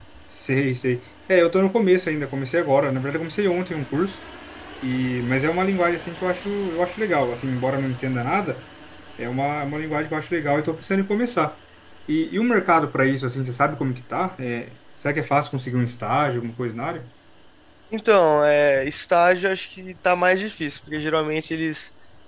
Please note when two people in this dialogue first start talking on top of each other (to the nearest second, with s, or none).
none